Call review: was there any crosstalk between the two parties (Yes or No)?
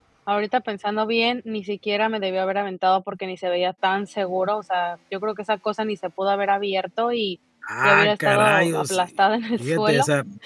Yes